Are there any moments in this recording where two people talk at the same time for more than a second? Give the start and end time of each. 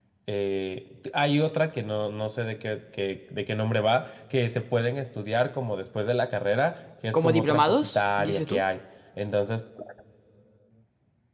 7.1-8.6

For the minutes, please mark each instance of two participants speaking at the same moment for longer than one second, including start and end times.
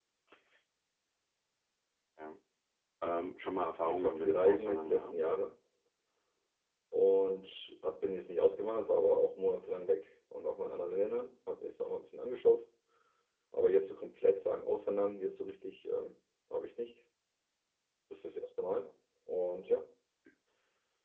3.8-5.1

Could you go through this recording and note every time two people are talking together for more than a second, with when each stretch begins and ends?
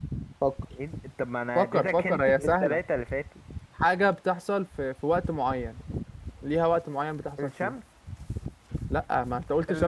1.6-2.8

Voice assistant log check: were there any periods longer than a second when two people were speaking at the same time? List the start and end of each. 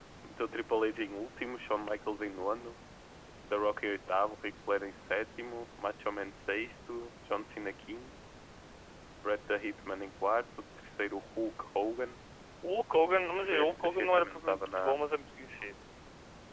13.3-14.9

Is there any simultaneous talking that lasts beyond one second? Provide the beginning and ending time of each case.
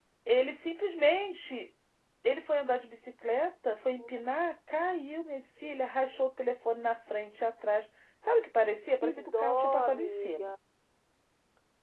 9.0-10.5

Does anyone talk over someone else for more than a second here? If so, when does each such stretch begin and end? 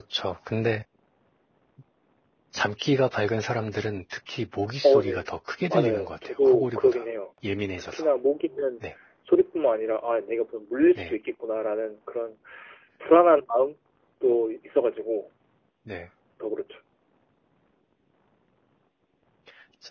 5.7-7.0

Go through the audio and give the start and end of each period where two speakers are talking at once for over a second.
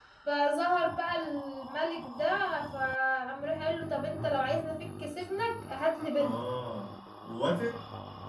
none

